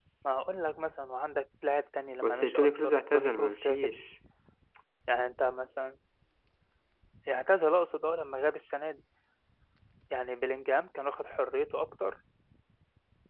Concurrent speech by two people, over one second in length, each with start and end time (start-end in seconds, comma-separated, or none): 2.2-3.9